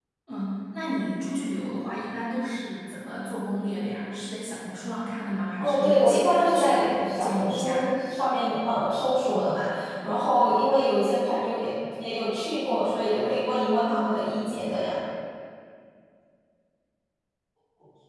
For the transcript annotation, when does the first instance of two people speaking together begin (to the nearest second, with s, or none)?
6 s